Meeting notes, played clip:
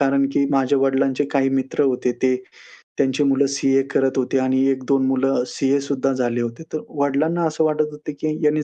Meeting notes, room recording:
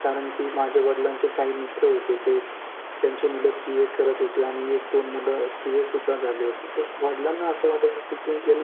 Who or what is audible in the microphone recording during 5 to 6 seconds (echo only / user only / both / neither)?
echo only